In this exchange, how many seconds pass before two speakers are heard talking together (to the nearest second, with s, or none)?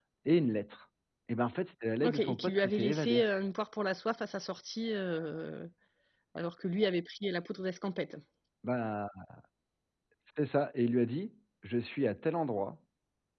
2 s